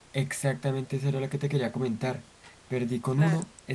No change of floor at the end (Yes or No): Yes